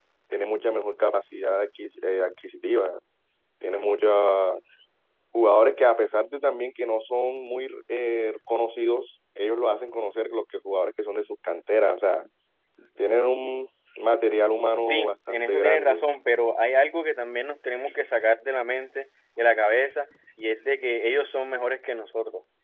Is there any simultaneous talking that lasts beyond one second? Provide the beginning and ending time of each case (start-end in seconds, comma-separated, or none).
14.8-16.0